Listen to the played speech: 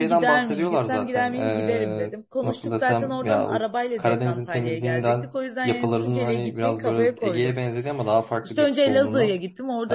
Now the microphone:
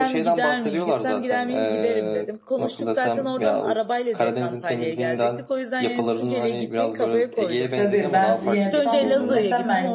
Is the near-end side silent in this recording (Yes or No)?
No